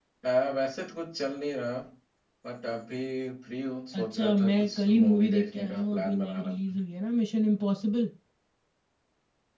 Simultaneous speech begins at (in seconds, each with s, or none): 3.9 s